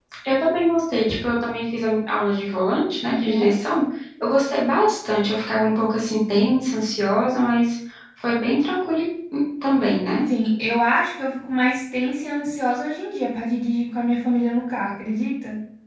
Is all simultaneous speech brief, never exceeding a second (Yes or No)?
Yes